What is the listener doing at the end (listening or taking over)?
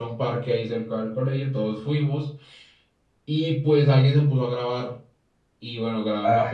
listening